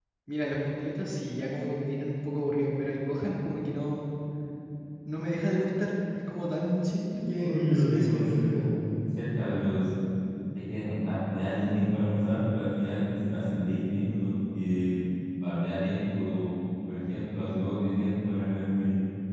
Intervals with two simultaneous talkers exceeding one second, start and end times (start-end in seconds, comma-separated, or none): 7.2-8.7